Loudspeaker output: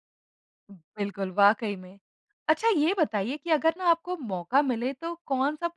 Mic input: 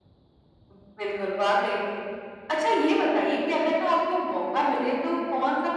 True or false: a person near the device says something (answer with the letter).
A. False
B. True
A